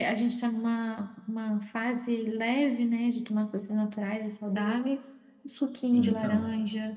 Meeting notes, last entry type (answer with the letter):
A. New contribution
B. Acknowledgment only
A